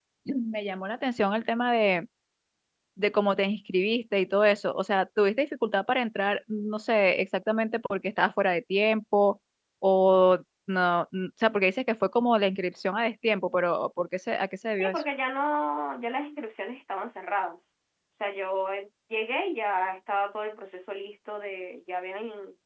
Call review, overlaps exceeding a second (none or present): none